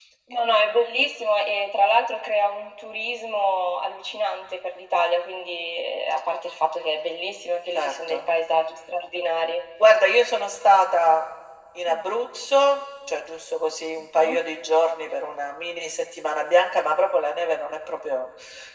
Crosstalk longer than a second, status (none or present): none